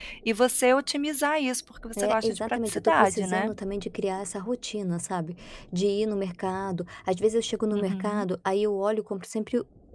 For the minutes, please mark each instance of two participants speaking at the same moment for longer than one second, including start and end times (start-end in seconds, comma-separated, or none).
2.0-3.5